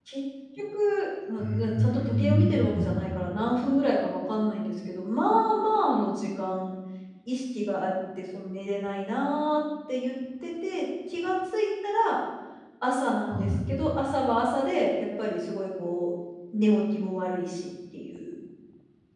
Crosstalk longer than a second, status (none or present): present